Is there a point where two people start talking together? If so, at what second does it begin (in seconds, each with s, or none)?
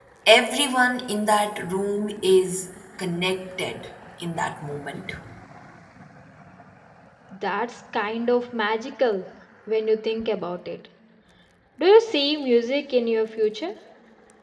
none